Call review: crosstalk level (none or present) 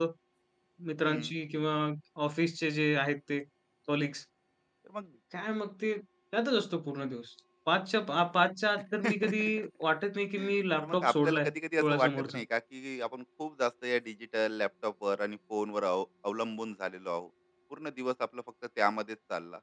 present